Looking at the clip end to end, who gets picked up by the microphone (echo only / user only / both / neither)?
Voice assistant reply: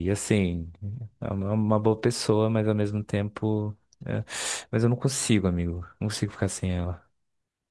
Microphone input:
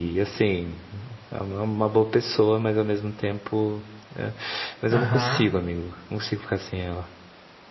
both